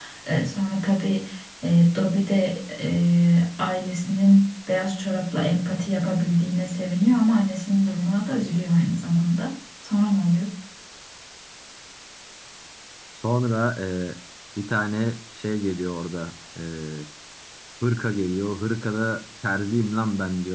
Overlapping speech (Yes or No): No